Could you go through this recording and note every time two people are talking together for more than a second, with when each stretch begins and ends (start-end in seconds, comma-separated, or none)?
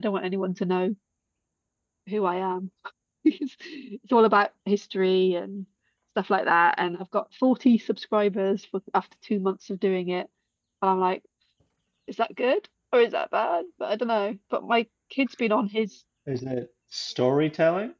none